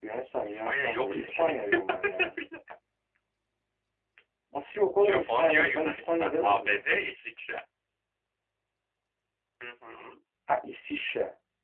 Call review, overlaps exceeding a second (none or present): present